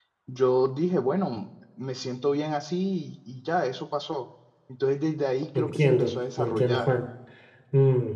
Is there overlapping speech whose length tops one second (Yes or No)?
Yes